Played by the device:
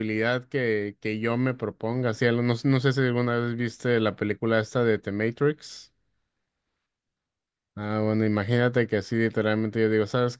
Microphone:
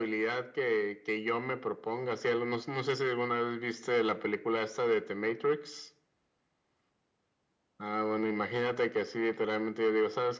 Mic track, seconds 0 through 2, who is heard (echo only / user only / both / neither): echo only